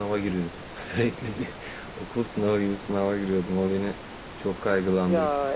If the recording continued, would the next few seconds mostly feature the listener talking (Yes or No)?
No